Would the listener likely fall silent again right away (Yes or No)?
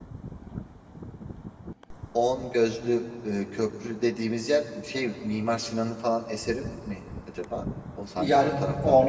No